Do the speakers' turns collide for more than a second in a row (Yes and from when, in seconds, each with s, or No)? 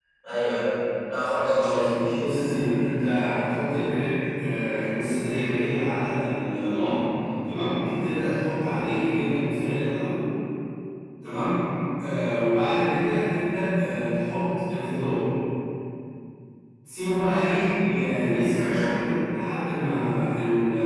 No